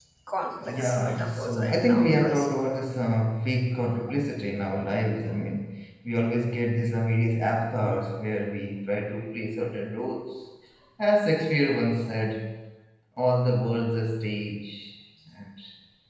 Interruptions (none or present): present